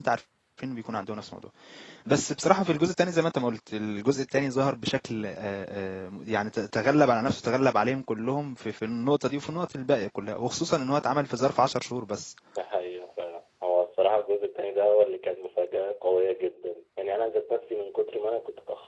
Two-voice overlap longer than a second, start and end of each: none

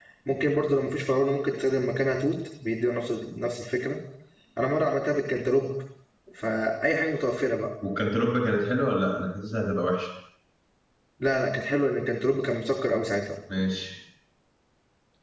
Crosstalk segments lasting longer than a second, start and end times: none

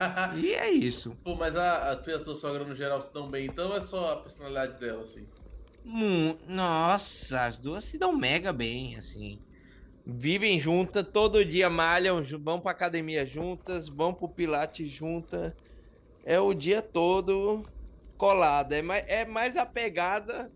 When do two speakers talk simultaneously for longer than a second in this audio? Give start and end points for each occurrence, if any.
none

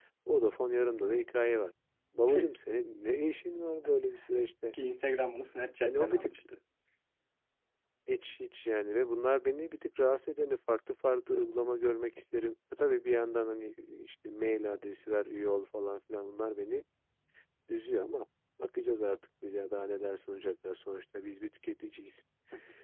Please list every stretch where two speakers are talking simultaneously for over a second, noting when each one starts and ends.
none

